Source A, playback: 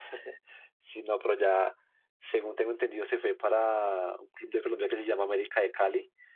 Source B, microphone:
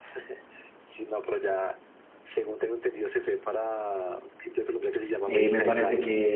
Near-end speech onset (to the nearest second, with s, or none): 5 s